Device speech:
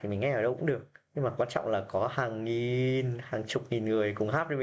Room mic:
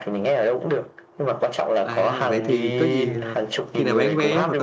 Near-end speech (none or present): present